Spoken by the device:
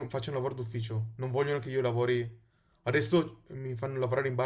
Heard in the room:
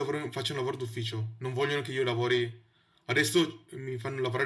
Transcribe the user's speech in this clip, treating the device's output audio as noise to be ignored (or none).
none